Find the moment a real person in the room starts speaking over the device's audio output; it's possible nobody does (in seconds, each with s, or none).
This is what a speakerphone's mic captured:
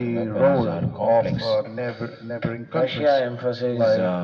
none